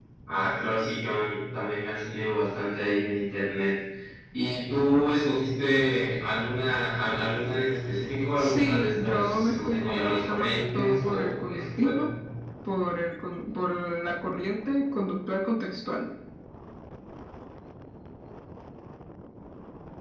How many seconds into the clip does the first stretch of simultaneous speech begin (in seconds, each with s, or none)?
8.3 s